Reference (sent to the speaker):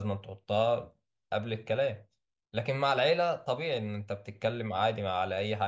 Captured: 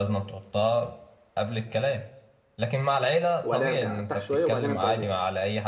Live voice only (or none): وبعدها ارجع ارتاح شوية وبعدين ابدا اذاكر